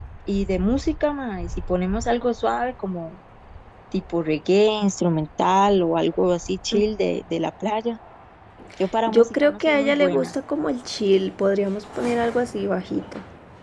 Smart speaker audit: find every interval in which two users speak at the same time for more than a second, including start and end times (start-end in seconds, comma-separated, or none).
9.1-10.3